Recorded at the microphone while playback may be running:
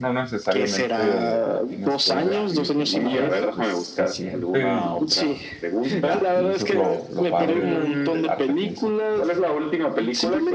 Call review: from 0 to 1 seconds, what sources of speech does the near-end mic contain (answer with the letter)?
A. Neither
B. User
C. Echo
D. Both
D